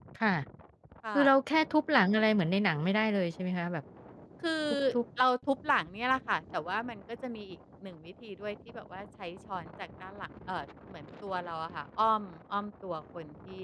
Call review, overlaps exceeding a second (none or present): none